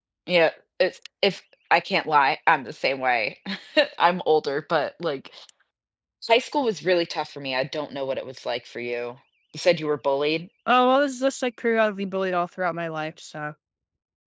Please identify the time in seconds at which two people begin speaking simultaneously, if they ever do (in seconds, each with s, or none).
none